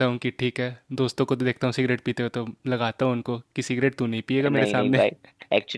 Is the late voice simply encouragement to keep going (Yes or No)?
No